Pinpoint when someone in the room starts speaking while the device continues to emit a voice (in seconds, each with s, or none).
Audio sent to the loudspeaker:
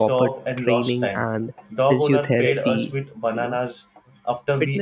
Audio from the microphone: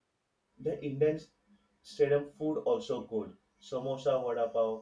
0.6 s